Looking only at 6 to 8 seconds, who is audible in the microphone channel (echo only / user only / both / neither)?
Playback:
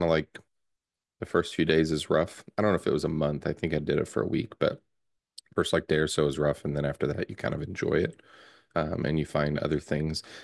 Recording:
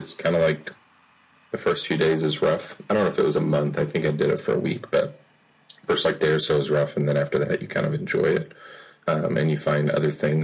echo only